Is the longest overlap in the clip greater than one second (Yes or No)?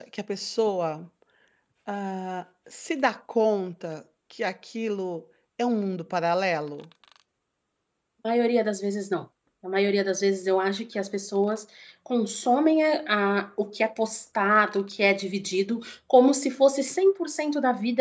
No